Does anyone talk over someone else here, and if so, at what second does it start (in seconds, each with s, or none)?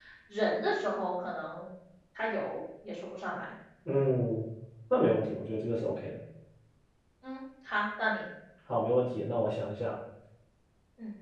none